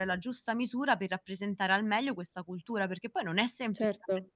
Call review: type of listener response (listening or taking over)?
listening